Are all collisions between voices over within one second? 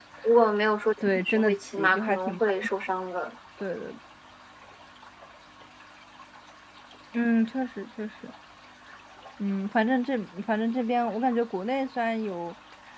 No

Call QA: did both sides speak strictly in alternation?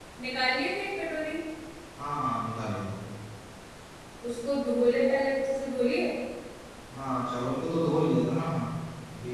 Yes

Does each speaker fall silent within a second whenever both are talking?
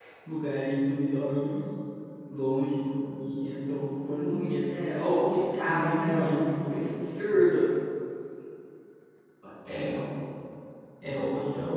No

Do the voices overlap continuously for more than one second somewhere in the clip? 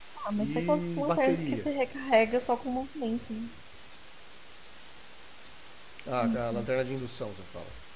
Yes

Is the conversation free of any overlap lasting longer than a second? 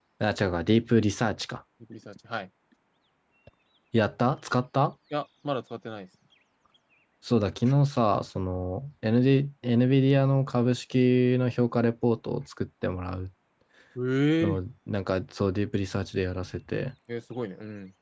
Yes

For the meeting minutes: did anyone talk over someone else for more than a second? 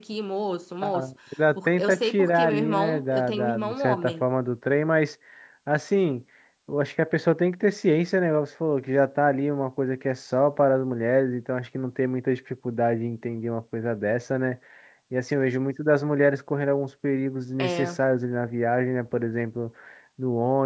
Yes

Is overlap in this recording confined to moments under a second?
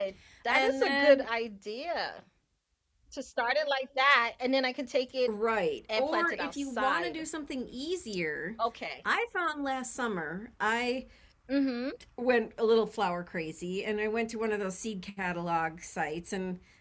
No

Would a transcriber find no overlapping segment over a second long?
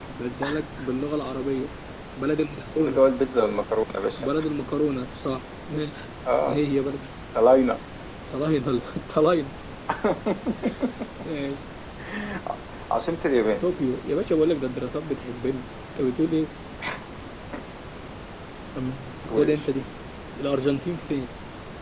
Yes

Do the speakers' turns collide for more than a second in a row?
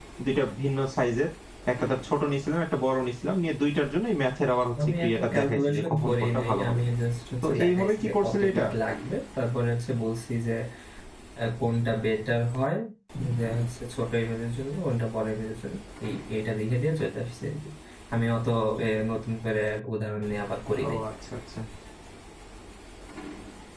Yes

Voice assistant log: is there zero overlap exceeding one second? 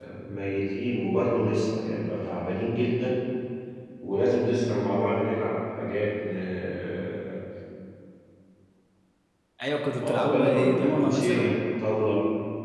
No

